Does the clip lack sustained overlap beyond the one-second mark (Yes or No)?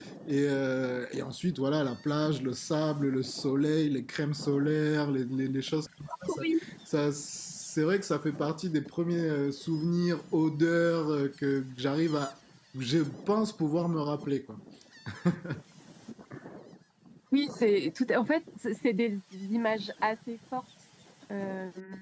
Yes